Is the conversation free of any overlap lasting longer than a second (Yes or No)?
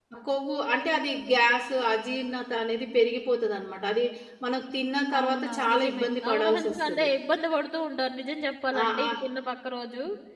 No